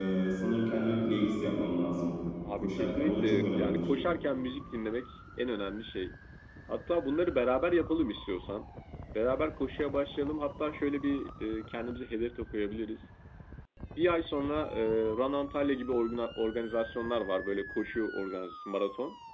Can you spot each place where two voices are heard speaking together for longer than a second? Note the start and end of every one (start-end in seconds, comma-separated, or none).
2.6-3.9